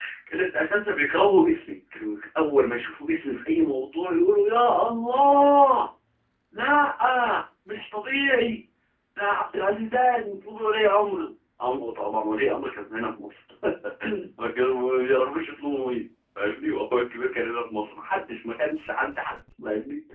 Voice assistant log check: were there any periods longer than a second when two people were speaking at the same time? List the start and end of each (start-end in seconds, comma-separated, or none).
none